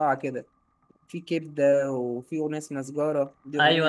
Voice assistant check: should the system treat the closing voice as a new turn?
Yes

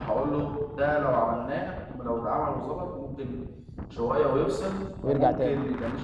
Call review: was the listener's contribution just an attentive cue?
Yes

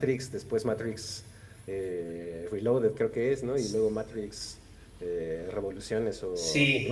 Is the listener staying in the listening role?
No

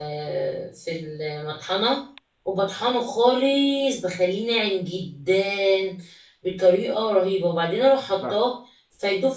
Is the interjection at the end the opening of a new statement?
No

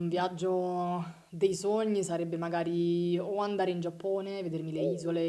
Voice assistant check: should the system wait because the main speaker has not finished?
Yes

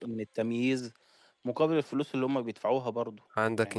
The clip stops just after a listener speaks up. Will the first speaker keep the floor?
No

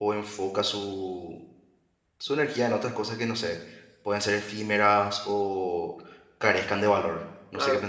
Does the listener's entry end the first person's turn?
Yes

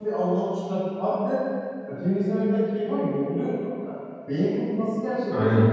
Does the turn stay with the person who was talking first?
No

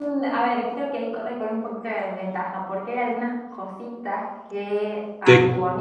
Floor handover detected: No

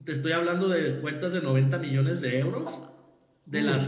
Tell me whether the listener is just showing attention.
Yes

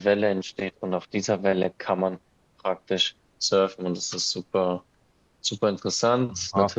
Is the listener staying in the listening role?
Yes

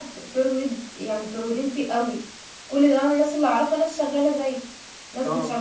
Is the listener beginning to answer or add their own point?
Yes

